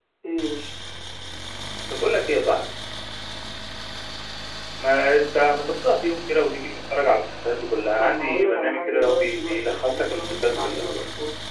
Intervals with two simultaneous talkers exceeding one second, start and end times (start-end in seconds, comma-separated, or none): 8.0-10.8